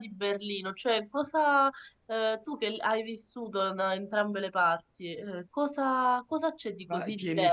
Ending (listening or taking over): taking over